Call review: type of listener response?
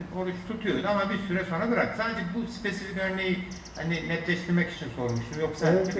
taking over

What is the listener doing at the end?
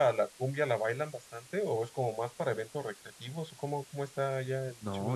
taking over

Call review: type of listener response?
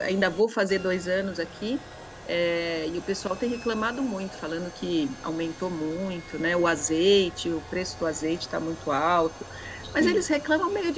listening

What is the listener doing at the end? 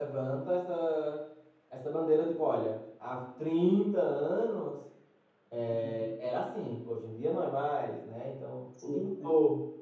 listening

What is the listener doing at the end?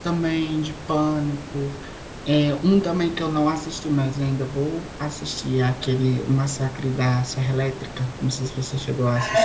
taking over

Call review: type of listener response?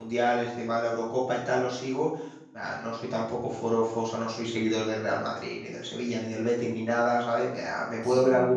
listening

